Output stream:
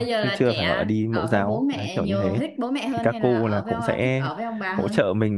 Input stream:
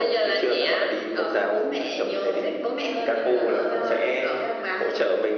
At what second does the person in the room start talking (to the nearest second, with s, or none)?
none